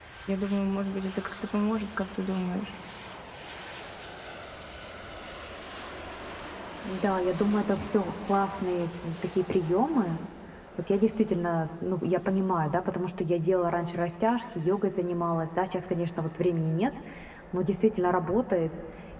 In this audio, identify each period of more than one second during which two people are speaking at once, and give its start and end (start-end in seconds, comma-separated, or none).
none